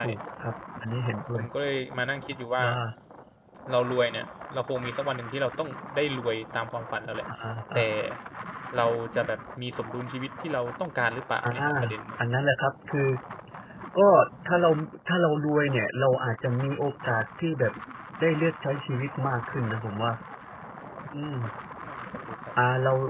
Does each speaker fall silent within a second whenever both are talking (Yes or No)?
Yes